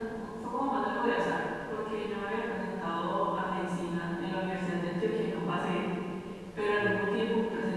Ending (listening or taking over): listening